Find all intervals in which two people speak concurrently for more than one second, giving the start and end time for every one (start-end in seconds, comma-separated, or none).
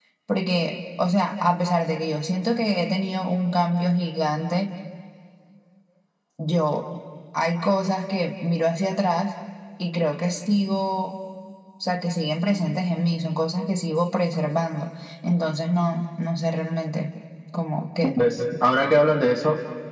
none